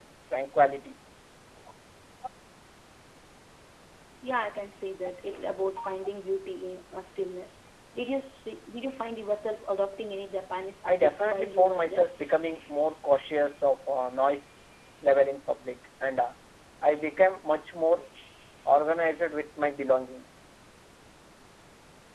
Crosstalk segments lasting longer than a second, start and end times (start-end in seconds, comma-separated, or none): 10.9-12.1